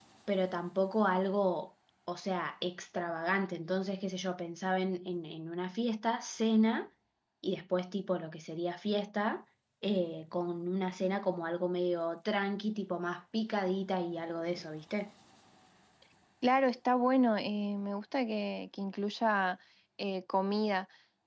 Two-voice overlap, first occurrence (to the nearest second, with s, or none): none